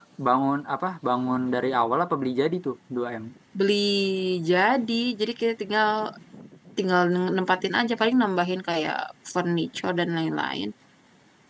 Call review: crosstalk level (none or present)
none